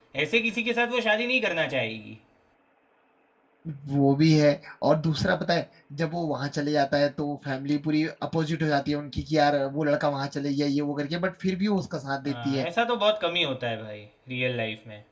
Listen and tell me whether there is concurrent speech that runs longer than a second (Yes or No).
No